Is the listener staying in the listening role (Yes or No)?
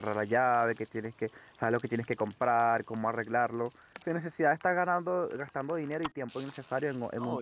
No